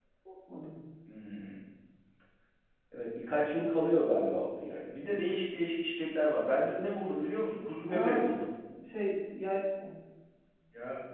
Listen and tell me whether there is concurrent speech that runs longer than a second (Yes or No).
No